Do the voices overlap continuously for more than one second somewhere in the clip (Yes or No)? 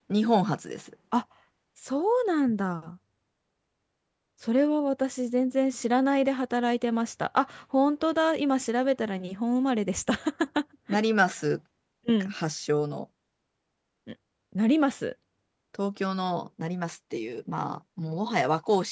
No